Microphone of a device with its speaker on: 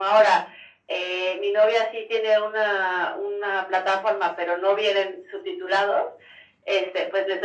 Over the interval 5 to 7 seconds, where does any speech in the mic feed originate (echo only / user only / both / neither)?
echo only